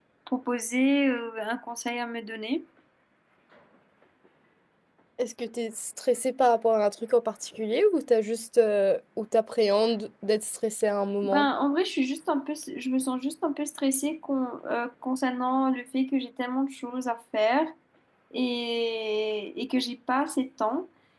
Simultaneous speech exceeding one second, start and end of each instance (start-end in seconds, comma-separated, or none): none